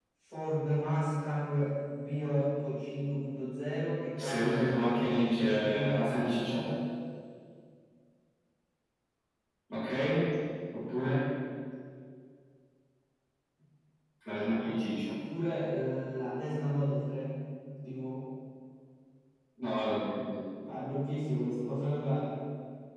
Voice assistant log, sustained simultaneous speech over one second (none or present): present